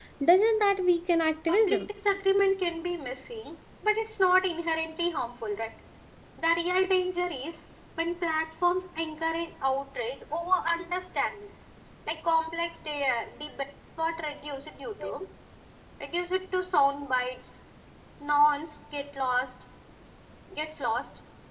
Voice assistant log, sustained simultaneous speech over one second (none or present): none